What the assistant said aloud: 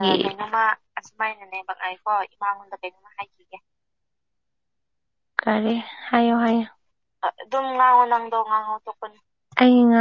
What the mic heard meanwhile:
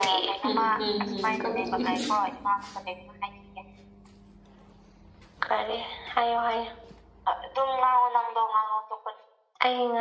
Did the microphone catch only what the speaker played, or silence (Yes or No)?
No